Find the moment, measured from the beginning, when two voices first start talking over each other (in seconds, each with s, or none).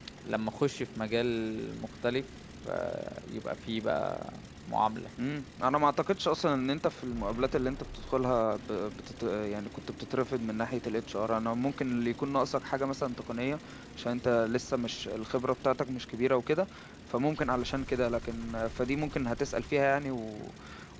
none